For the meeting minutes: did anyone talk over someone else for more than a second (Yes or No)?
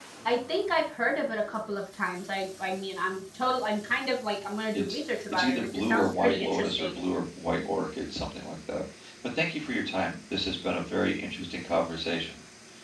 Yes